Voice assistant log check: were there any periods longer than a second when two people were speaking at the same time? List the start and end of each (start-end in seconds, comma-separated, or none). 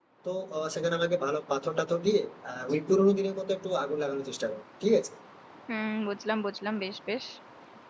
none